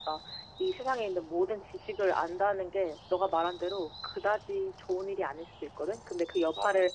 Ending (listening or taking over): listening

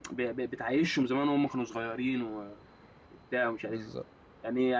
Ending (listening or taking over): listening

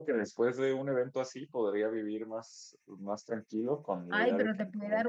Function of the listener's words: taking over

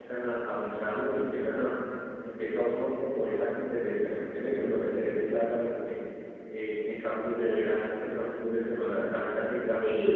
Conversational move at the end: listening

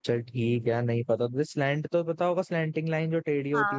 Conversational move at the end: taking over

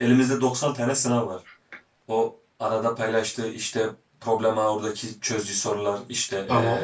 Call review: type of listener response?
listening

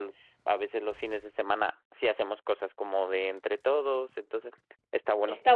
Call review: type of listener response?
taking over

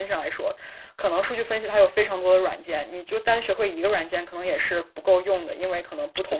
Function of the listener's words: listening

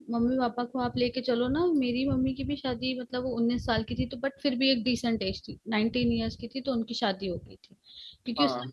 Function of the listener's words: listening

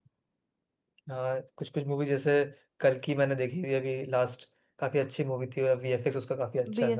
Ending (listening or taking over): taking over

